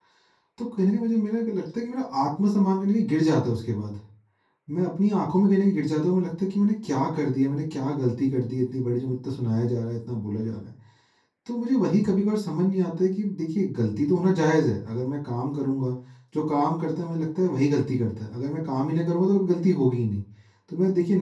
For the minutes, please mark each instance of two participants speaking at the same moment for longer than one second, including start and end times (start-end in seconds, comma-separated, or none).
none